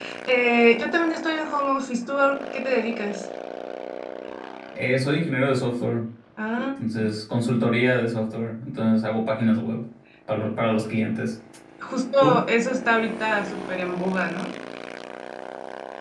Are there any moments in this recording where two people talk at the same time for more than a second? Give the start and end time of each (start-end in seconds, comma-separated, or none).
none